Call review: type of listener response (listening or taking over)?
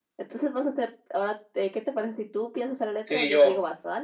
taking over